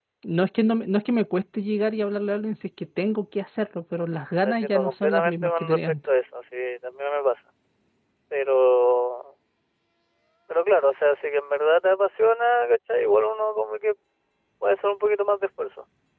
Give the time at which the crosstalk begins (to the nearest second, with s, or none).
4 s